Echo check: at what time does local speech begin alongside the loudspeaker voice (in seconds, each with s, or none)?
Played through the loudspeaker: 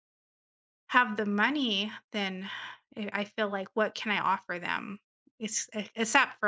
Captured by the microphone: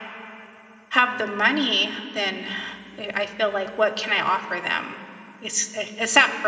none